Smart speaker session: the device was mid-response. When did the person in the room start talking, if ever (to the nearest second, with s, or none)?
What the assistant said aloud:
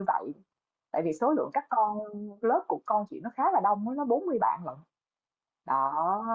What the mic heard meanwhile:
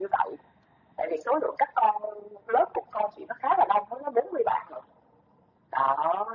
none